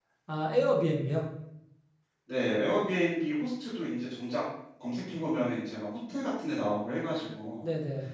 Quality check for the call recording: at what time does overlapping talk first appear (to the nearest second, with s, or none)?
none